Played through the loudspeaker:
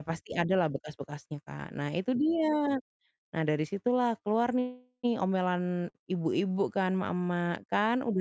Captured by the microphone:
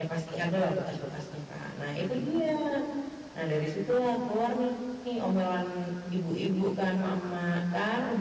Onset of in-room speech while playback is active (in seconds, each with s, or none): none